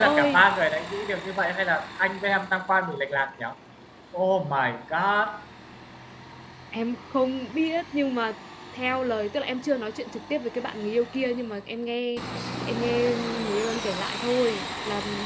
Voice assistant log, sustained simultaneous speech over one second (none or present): none